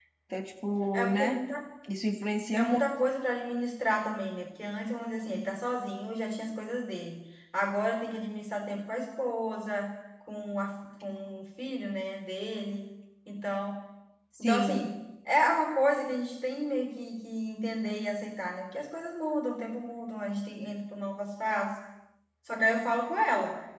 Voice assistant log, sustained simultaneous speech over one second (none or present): none